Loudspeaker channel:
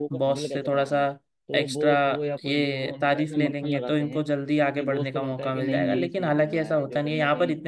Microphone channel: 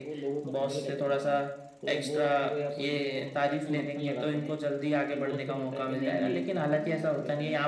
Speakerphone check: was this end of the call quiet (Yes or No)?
Yes